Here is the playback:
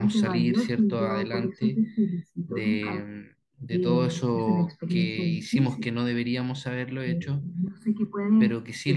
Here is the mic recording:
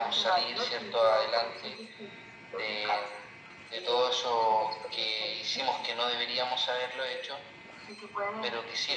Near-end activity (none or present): none